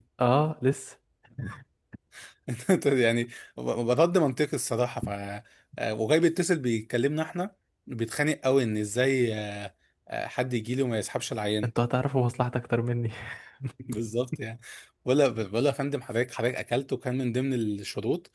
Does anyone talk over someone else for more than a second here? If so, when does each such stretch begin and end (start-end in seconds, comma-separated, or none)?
none